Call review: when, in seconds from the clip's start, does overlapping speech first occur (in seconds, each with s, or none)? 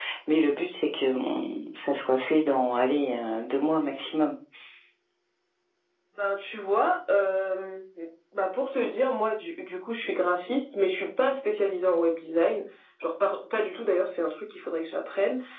none